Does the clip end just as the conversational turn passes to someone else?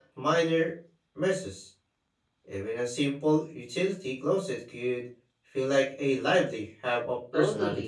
Yes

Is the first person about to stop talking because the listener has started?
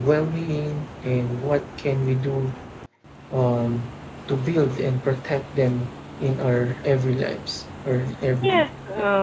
Yes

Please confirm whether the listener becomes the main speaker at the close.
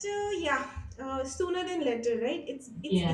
No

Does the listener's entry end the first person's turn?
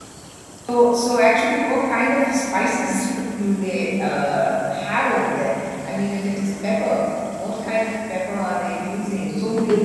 Yes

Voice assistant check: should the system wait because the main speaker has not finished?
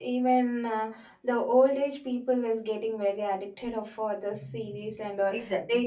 No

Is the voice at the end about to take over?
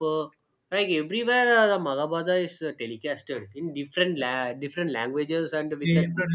Yes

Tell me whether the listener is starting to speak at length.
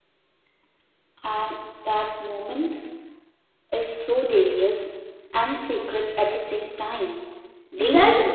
No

